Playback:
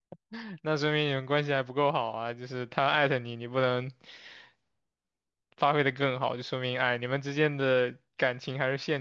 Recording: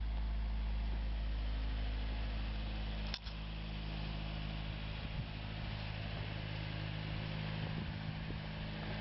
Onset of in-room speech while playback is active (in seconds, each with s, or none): none